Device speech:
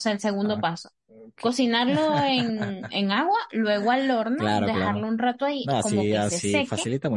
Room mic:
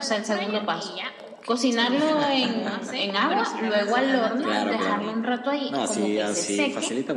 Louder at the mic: echo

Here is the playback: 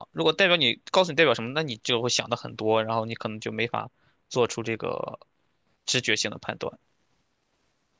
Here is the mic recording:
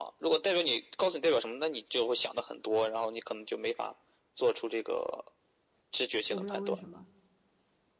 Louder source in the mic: echo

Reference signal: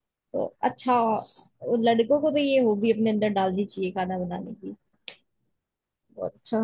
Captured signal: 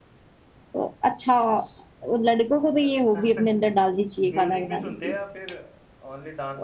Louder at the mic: echo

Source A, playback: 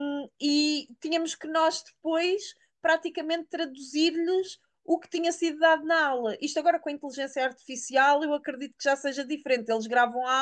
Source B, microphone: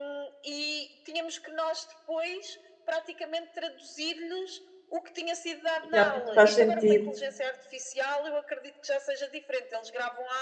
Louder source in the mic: user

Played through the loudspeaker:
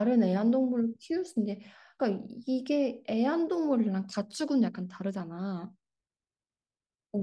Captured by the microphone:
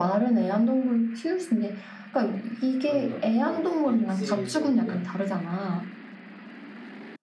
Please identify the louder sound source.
echo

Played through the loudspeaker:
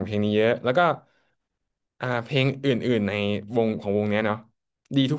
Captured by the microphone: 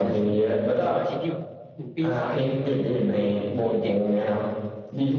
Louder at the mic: echo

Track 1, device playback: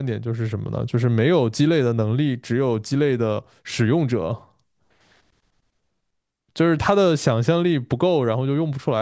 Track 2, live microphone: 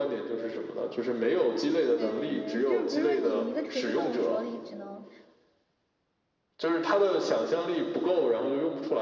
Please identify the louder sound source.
echo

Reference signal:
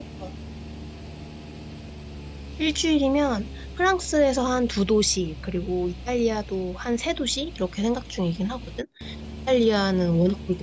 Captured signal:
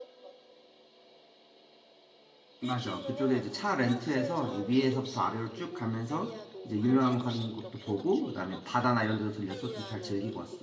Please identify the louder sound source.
user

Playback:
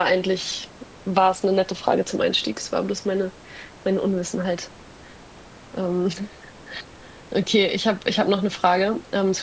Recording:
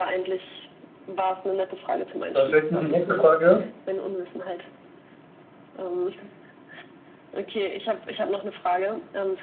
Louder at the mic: user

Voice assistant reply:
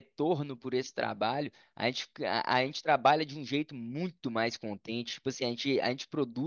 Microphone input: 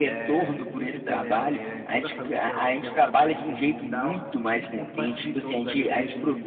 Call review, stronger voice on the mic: echo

